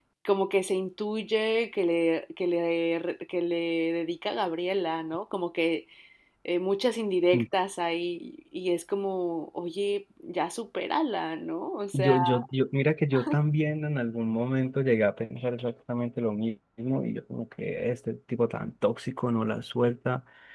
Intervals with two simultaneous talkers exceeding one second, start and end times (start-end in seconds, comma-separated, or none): none